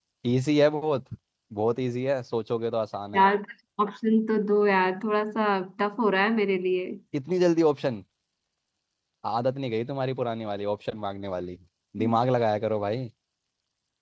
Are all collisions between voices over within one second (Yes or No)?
Yes